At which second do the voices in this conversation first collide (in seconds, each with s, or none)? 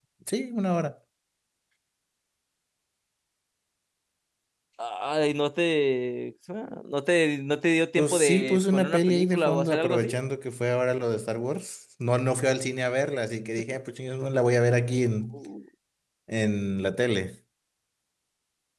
8.0 s